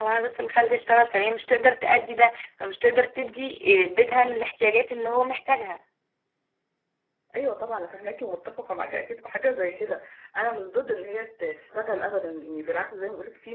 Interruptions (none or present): none